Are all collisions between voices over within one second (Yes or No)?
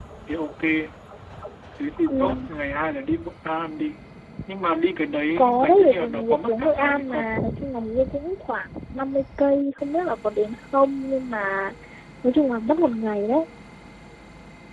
No